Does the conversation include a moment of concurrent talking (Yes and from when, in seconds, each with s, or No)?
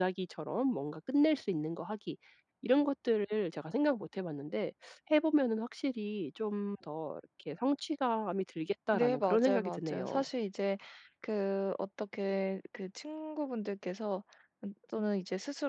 Yes, from 8.9 s